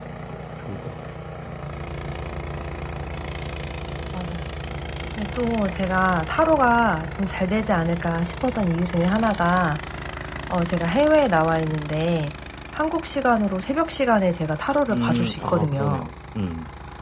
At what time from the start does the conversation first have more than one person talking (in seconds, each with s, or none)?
14.9 s